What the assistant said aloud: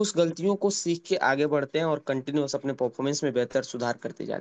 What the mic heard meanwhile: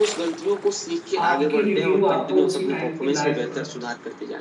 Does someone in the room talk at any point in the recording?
Yes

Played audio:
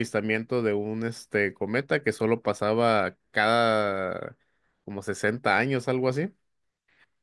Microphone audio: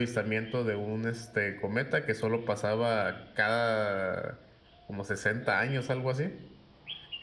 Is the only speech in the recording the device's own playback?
Yes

